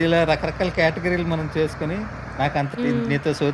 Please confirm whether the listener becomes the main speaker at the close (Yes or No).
No